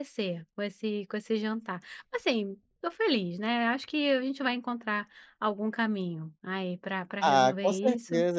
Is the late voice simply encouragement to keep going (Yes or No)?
No